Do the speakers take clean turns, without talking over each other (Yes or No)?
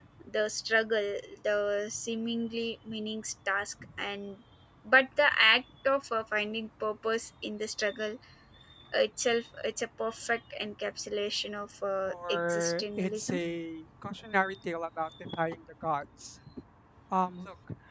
No